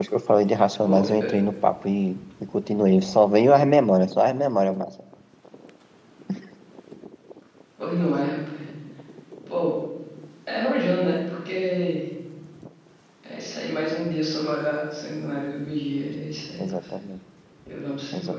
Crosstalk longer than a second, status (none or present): none